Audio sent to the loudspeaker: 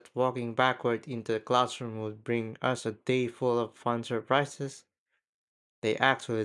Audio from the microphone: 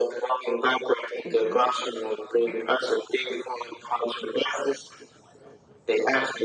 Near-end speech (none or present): present